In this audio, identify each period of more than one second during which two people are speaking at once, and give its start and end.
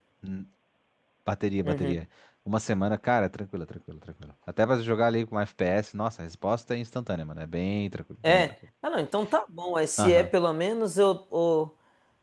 none

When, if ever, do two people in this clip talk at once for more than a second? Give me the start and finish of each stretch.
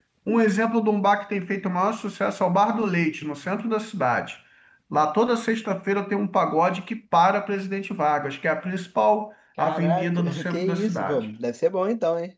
9.6-11.2

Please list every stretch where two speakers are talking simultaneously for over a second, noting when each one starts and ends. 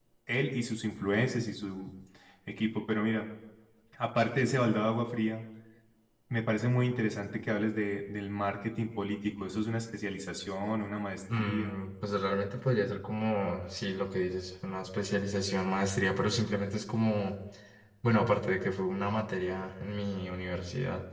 none

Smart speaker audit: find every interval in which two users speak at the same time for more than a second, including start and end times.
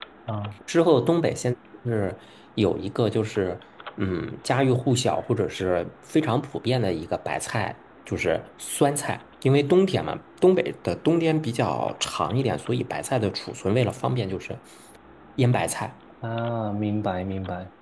none

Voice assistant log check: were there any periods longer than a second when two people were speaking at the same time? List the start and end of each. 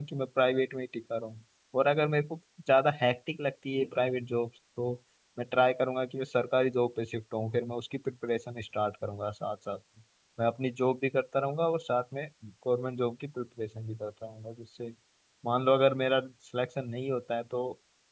none

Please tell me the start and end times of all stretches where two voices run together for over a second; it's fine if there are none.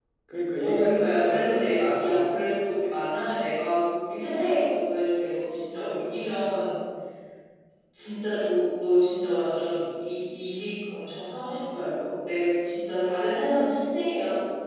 0.6-3.0

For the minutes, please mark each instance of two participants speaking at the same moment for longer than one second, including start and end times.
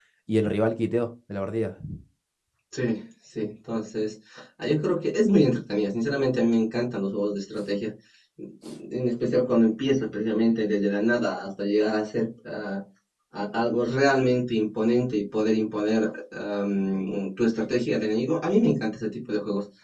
none

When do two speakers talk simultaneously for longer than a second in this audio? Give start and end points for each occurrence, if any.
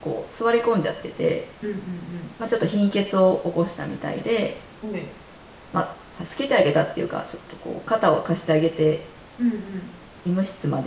none

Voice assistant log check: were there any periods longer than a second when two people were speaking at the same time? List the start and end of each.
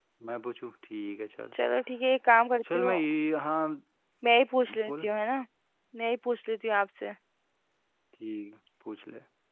none

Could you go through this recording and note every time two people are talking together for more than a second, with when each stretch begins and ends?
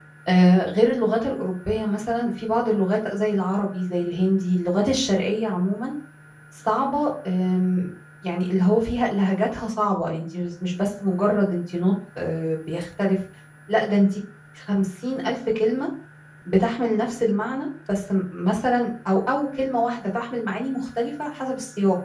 none

